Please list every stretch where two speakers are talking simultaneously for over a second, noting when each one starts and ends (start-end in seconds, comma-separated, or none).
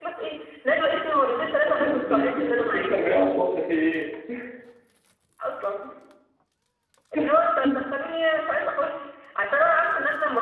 1.6-3.0